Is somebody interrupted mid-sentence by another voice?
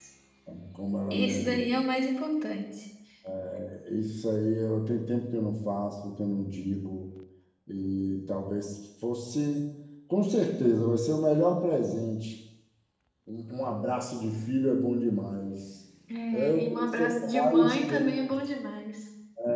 Yes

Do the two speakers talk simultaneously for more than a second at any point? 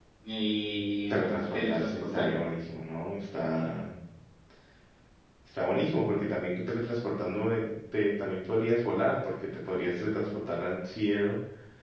Yes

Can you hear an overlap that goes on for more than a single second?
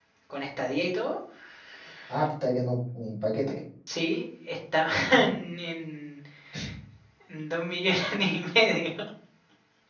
No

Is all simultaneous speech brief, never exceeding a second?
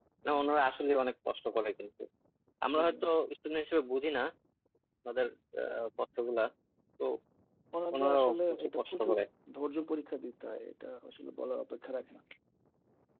No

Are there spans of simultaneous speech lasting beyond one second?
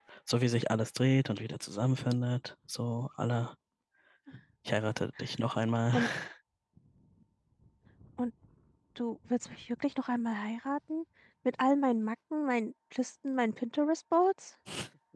No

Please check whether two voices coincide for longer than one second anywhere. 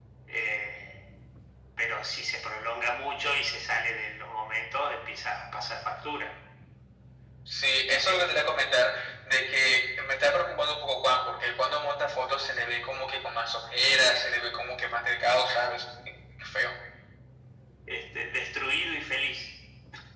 No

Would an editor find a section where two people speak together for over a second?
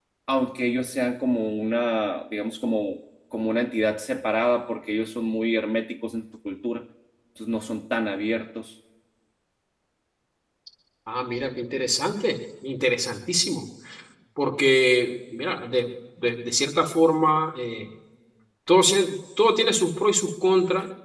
No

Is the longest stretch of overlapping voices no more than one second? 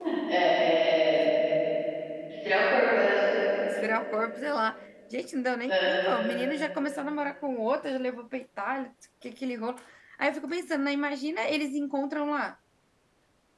Yes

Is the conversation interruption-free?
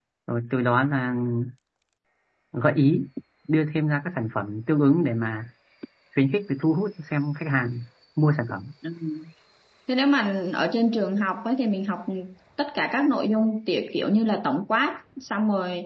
Yes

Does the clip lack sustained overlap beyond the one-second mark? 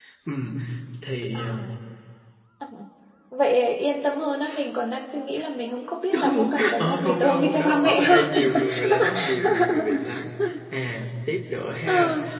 No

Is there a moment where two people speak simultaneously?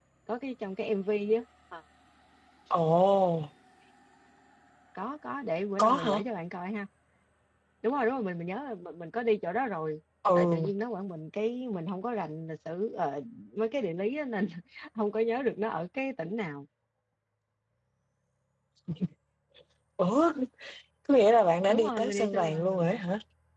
Yes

